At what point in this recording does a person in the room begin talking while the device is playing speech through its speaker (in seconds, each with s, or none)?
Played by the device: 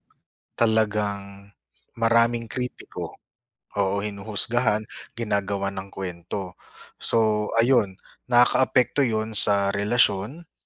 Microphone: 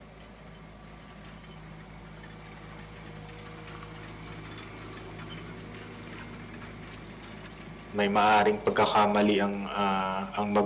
8.0 s